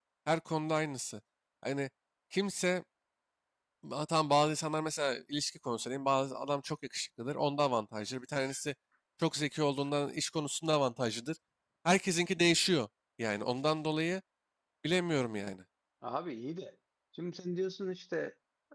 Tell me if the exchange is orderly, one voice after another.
Yes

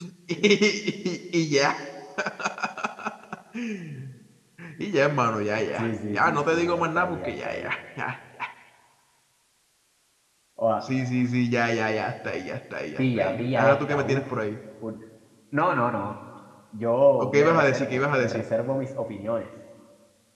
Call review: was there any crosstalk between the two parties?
Yes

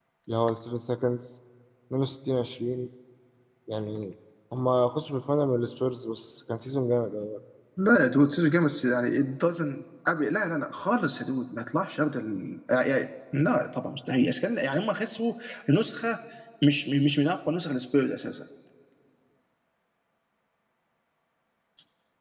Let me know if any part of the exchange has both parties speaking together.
No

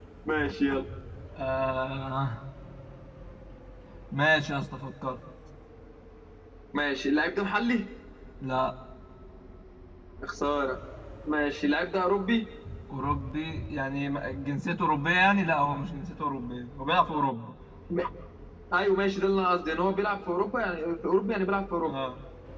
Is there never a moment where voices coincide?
Yes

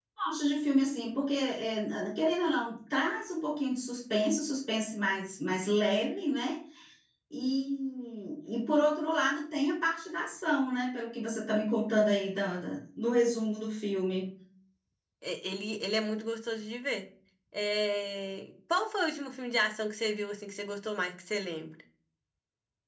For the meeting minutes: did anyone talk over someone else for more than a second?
No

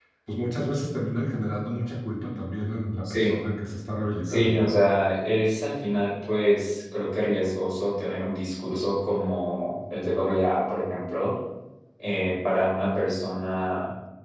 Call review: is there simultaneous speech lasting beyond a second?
No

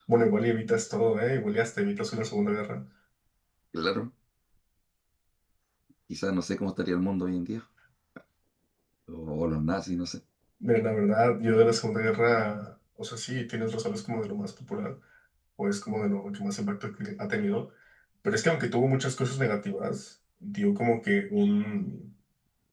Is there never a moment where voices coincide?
Yes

